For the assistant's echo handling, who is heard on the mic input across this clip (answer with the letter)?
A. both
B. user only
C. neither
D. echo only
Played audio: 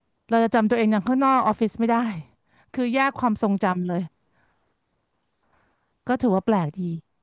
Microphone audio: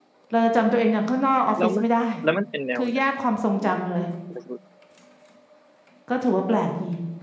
A